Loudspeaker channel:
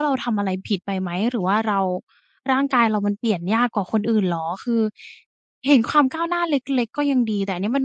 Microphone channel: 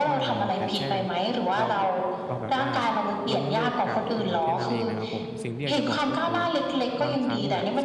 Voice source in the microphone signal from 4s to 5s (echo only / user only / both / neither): both